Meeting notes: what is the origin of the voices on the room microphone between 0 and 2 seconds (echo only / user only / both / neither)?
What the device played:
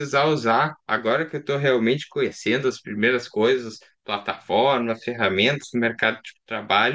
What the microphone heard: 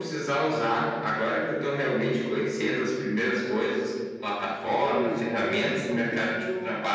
echo only